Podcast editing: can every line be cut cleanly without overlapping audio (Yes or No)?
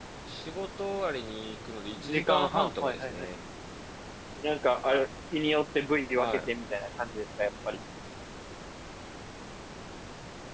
No